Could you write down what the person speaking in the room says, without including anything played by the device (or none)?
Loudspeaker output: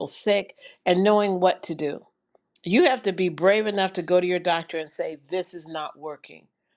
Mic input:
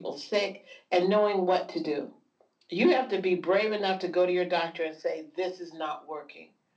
none